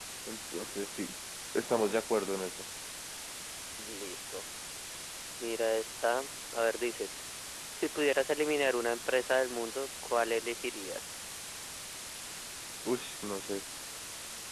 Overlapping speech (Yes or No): No